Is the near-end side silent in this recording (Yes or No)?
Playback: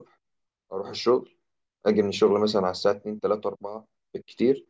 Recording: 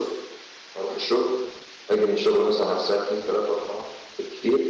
Yes